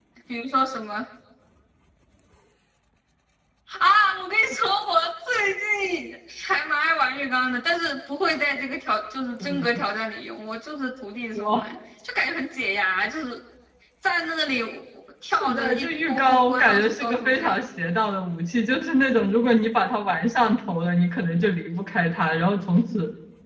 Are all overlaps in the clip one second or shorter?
No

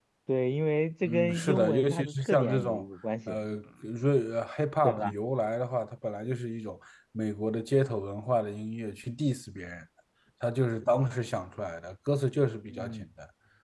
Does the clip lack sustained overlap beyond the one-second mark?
No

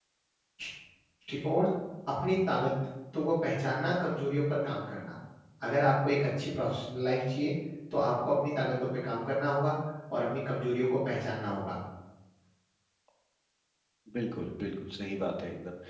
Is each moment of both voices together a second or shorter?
Yes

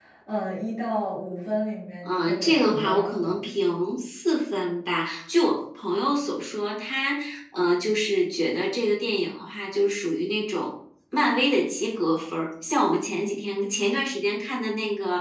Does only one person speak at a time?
No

